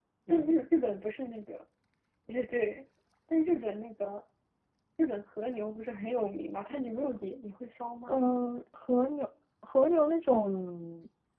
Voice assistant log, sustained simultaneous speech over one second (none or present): none